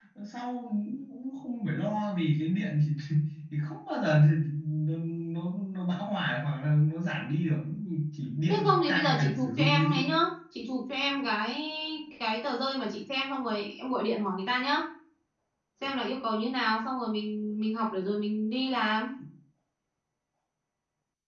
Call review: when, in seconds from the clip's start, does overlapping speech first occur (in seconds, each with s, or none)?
8.5 s